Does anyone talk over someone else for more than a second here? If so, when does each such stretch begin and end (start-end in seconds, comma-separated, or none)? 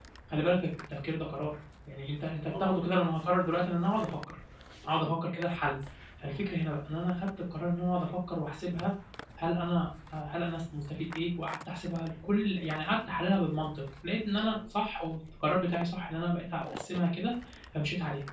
none